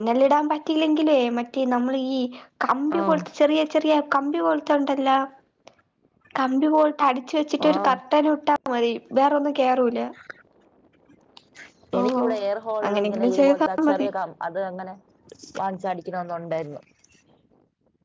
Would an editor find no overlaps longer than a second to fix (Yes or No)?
No